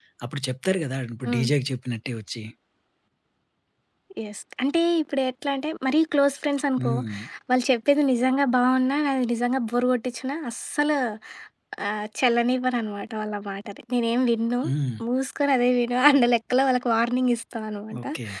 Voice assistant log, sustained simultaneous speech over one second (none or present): none